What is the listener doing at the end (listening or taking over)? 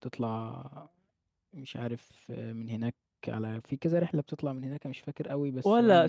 taking over